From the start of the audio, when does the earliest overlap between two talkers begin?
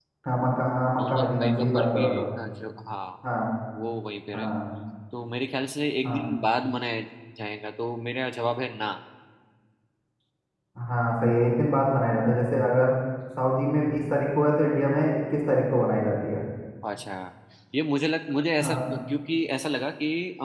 1.0 s

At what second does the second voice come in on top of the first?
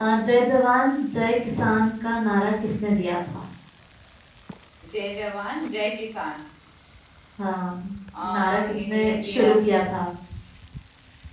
8.1 s

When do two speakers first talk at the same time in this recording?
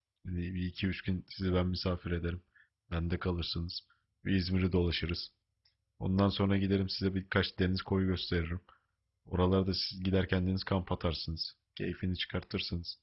none

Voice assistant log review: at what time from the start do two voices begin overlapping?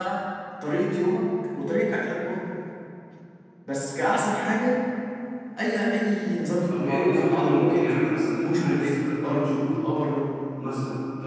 6.7 s

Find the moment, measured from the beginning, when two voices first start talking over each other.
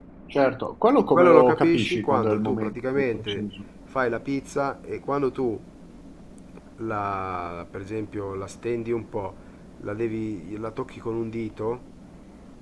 1.1 s

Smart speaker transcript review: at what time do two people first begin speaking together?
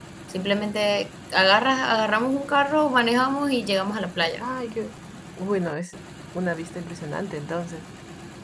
none

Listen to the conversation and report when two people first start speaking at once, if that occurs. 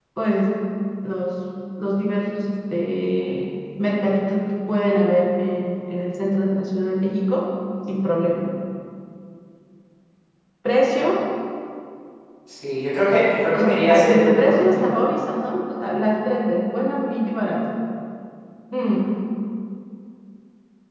13.5 s

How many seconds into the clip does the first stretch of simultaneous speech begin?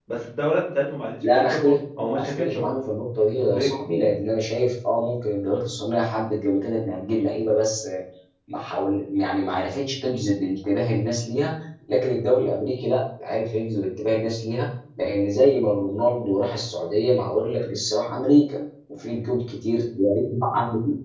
1.2 s

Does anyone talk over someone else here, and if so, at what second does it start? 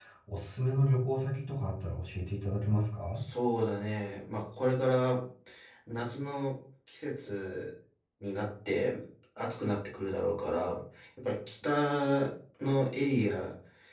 none

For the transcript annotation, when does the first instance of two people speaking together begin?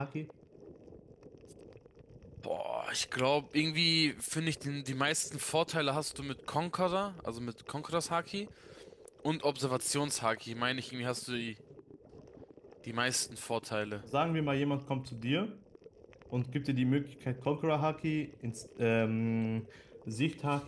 none

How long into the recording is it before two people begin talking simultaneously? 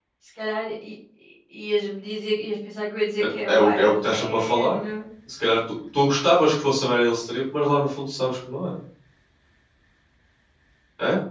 3.5 s

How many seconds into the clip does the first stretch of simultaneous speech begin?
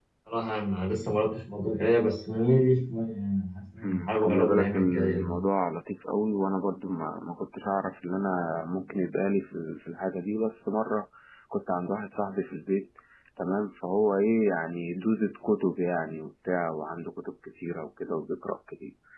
3.8 s

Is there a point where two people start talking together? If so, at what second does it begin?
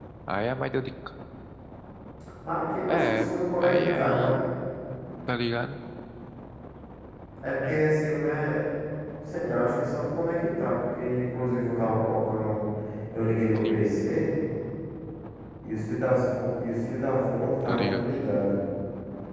2.9 s

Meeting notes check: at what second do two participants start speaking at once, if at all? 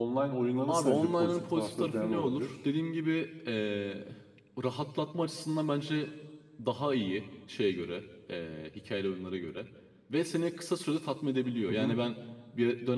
0.7 s

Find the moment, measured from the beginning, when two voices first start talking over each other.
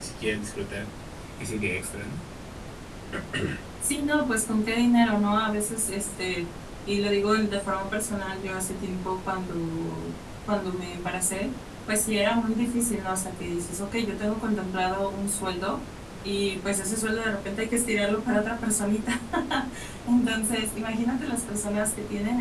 none

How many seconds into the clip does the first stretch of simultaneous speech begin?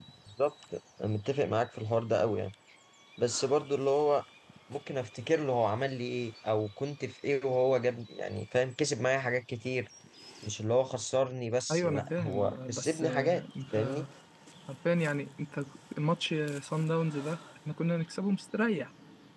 11.7 s

